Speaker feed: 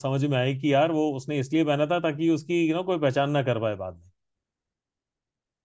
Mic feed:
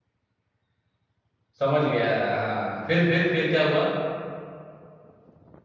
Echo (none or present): none